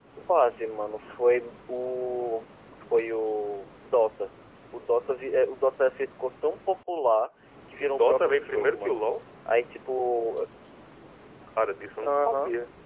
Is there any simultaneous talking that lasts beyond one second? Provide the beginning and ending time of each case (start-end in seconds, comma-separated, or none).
7.8-9.0